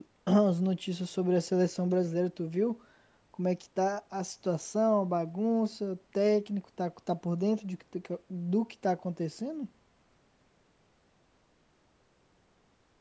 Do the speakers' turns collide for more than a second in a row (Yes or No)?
No